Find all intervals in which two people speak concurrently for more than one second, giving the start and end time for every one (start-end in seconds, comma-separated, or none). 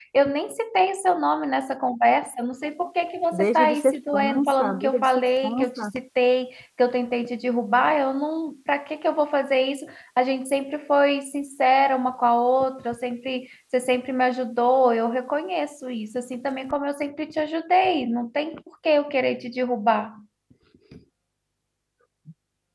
3.3-5.8